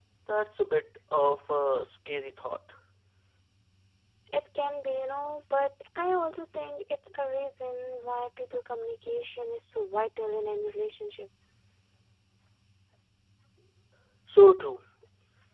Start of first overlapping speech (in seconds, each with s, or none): none